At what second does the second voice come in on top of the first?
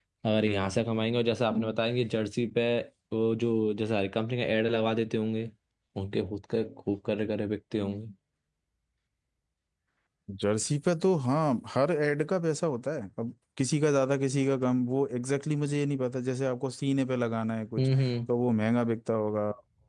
none

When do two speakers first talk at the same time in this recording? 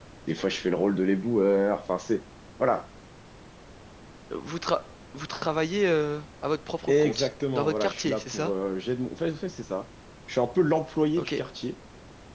6.9 s

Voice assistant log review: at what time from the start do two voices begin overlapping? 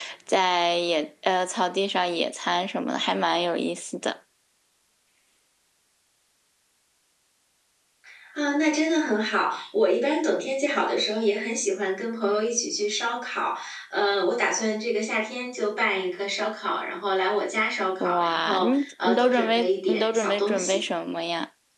18.0 s

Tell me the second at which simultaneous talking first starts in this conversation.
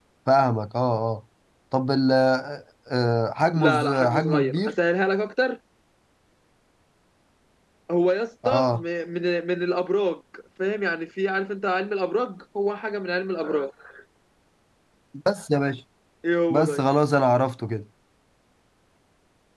3.5 s

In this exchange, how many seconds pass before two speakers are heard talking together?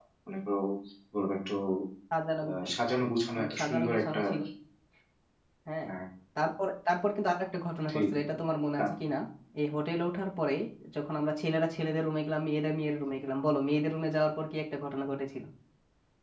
2.4 s

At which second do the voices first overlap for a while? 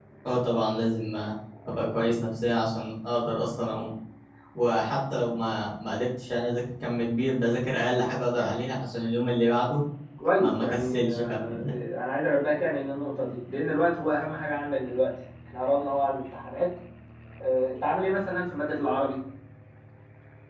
10.4 s

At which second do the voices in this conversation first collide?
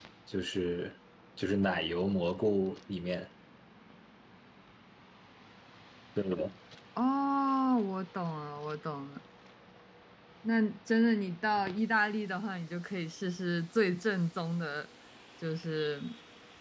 none

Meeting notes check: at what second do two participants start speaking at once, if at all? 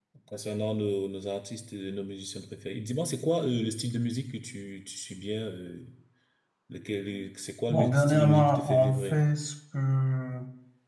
7.7 s

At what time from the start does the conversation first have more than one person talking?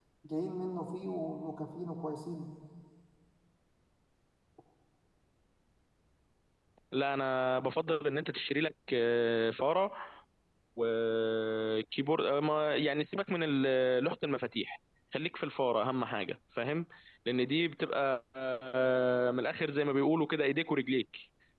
none

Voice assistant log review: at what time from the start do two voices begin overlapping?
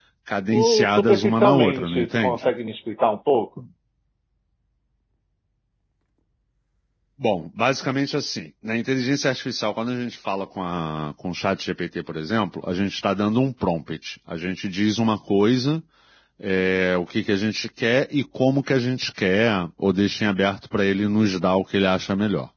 0.5 s

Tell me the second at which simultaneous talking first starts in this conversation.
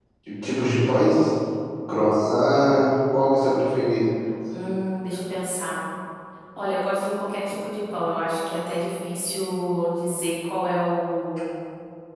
none

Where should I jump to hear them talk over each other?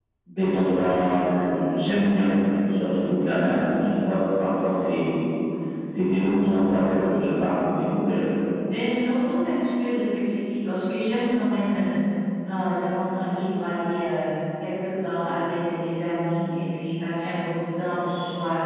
none

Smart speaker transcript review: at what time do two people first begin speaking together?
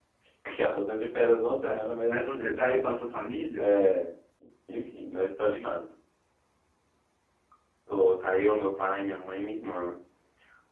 1.6 s

